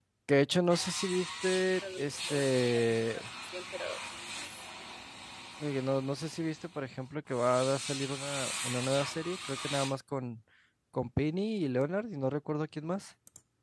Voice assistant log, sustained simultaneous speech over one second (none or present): present